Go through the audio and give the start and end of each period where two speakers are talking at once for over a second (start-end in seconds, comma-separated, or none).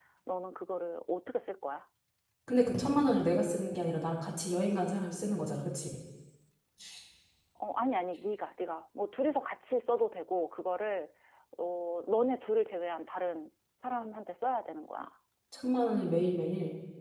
none